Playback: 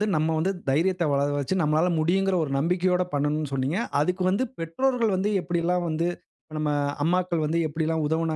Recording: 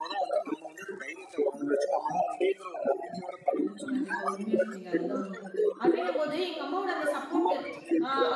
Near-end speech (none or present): present